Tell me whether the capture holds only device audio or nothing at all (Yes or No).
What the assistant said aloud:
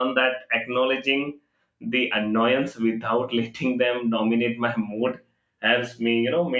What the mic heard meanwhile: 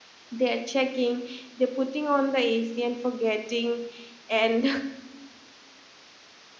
No